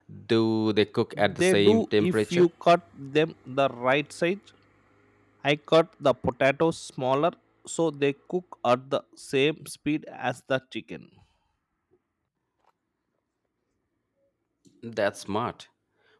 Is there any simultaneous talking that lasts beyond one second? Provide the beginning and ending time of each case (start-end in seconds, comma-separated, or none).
1.1-2.5